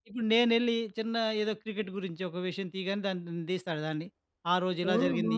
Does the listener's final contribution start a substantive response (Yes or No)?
No